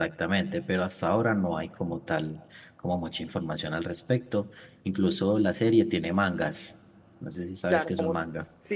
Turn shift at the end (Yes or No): Yes